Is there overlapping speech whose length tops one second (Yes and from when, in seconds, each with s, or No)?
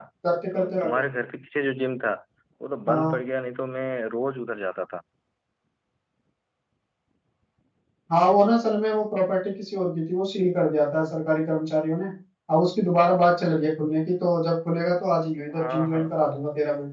No